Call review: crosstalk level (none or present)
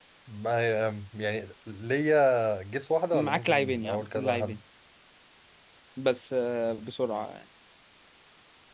present